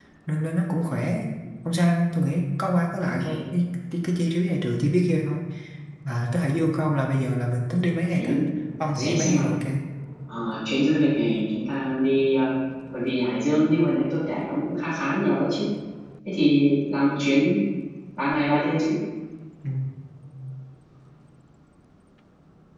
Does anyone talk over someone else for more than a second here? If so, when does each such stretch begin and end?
none

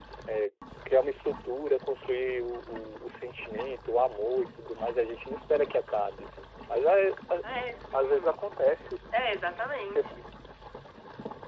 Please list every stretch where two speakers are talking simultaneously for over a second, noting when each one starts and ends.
none

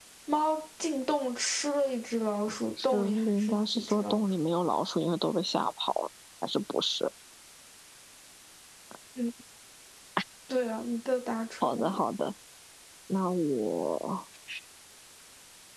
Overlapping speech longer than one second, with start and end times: 2.8-4.3

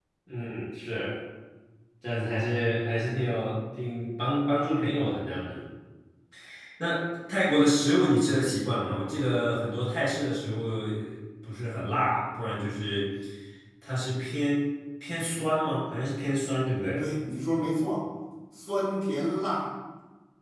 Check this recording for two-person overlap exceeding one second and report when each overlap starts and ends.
none

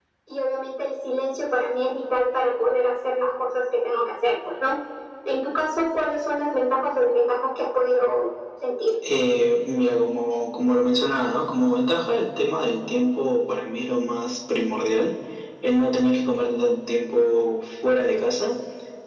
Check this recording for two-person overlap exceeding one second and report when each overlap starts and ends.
none

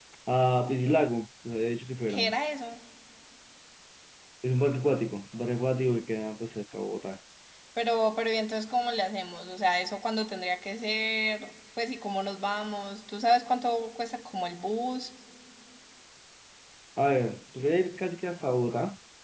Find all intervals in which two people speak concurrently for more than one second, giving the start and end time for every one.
none

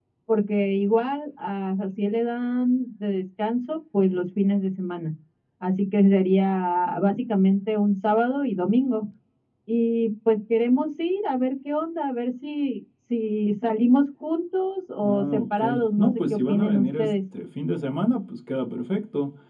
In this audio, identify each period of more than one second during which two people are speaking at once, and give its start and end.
15.0-17.1

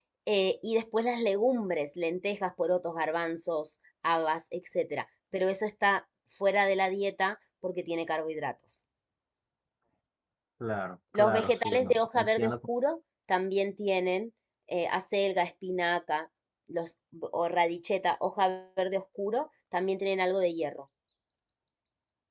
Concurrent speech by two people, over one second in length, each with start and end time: 11.1-12.6

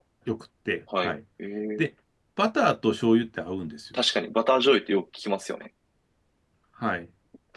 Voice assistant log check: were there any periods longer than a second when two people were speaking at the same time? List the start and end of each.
none

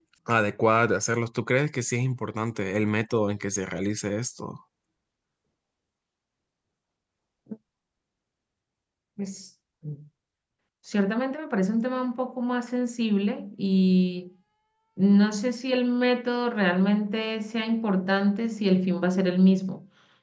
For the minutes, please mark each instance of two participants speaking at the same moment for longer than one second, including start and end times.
none

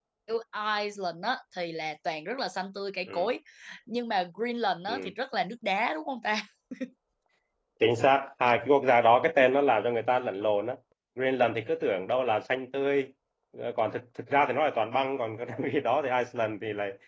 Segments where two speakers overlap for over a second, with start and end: none

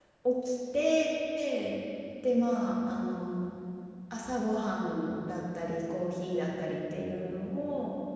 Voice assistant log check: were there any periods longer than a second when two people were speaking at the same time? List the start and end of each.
none

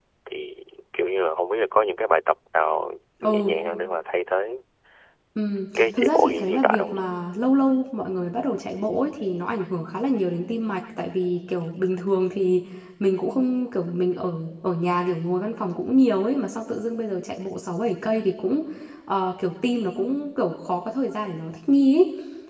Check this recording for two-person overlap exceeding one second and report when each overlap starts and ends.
5.8-7.0

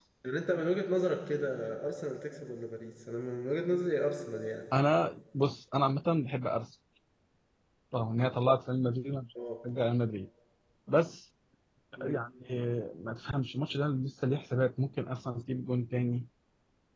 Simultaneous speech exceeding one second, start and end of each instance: none

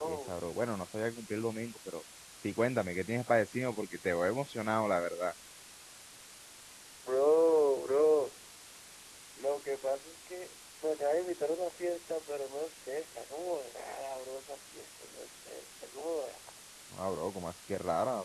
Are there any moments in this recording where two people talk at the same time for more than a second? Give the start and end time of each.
none

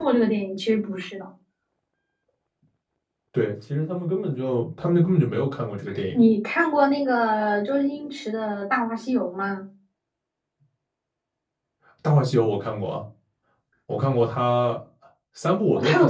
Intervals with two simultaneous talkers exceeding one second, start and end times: none

